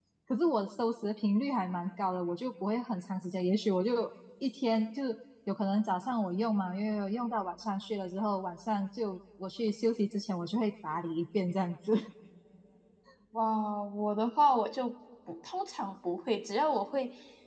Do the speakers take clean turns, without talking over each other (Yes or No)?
Yes